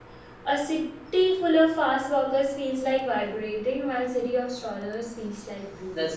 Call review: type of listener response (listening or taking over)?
taking over